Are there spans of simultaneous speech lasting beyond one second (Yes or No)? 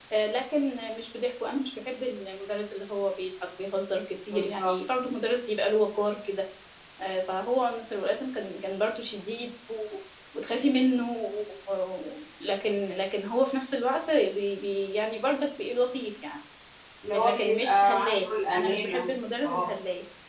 Yes